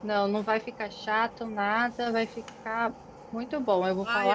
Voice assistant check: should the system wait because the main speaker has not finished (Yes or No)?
No